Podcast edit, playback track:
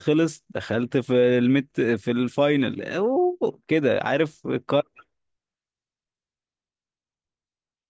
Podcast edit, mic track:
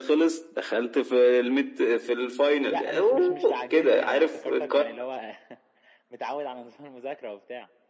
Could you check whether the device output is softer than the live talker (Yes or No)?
No